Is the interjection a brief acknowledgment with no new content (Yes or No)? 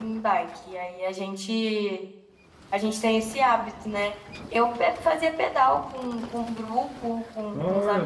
No